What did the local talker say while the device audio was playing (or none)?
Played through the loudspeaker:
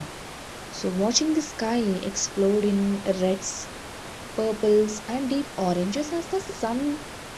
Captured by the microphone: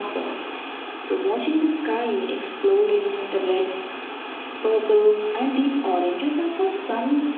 none